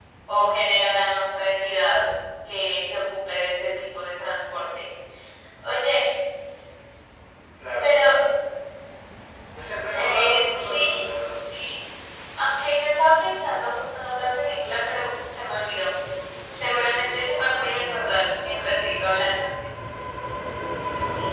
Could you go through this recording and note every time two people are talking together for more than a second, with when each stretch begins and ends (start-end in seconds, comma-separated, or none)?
9.9-11.3